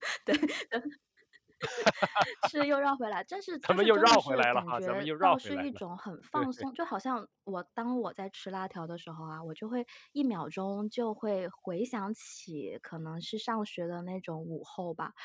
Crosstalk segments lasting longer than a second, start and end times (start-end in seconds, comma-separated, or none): 3.7-5.7